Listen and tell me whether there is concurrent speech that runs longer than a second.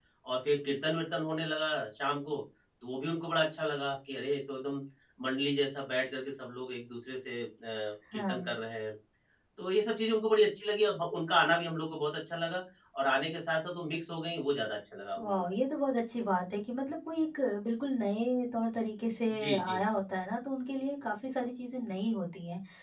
No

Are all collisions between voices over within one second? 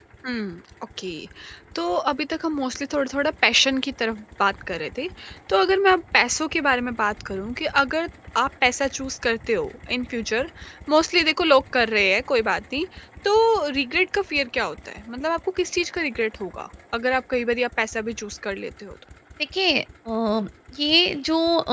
Yes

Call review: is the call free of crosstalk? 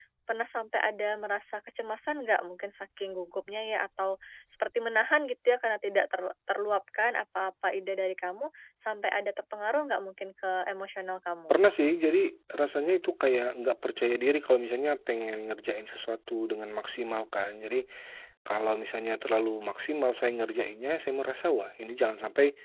Yes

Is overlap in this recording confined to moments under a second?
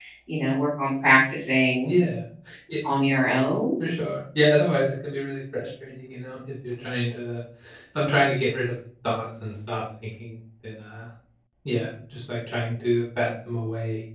Yes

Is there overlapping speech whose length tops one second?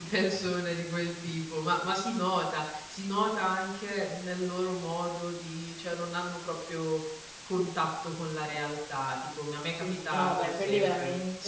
Yes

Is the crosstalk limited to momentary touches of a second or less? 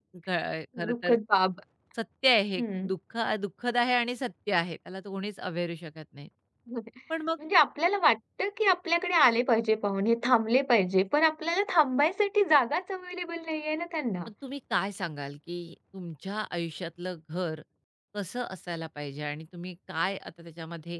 Yes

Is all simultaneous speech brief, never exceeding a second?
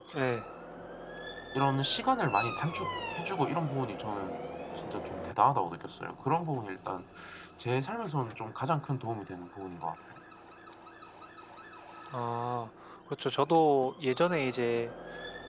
Yes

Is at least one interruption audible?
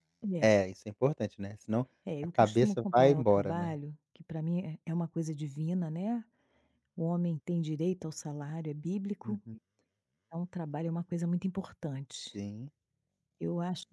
Yes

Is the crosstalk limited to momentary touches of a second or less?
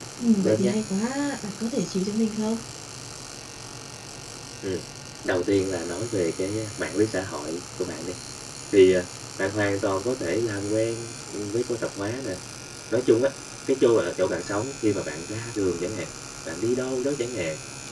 Yes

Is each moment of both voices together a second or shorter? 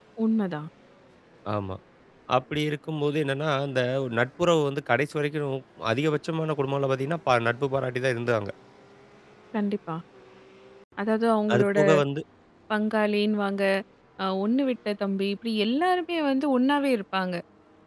Yes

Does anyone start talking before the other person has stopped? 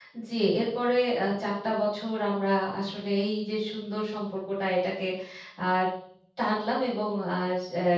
No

